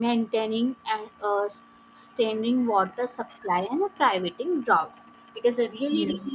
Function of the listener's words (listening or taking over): listening